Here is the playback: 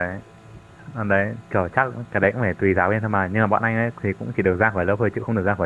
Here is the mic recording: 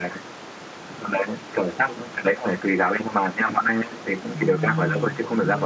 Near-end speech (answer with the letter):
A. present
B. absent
A